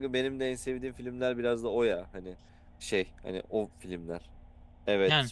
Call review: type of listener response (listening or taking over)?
listening